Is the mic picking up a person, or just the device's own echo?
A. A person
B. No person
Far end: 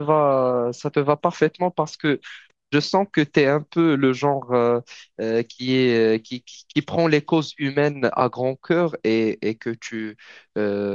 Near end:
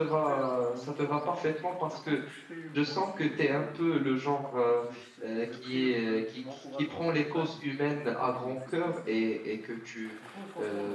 A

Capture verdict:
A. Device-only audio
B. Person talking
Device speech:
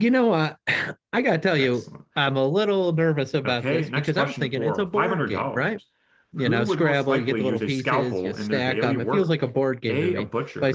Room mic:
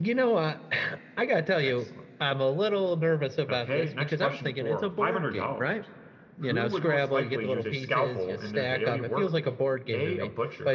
A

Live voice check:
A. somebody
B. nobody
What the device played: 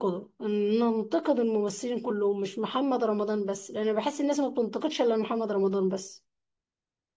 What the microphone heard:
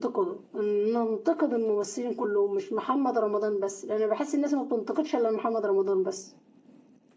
B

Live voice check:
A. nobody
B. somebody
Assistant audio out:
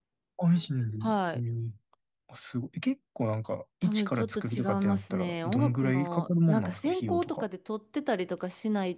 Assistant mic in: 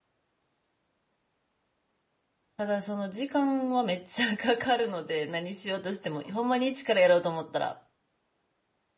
B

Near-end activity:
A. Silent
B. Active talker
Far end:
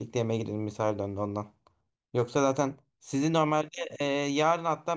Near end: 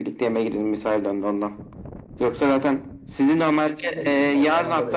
B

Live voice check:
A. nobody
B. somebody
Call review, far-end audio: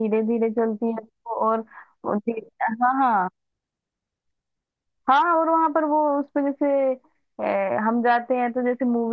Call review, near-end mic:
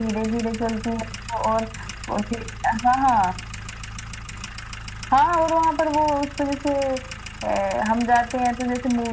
A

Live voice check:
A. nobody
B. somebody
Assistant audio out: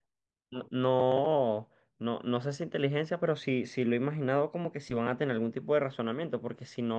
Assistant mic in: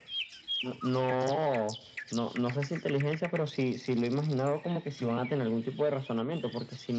A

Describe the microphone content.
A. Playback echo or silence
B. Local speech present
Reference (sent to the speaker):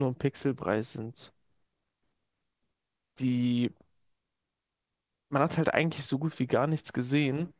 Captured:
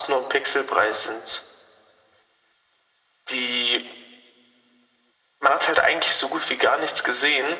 A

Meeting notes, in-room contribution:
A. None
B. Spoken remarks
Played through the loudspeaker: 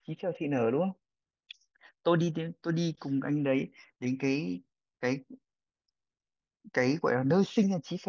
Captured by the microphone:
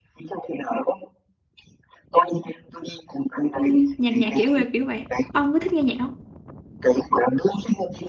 B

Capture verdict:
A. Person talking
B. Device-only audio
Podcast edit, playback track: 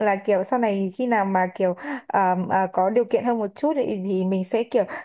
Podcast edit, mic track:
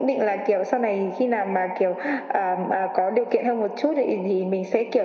B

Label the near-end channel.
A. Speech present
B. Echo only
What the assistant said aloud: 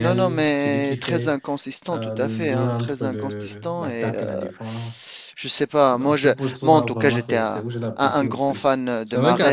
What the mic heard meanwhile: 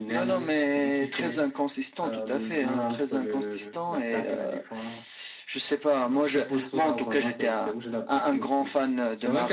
B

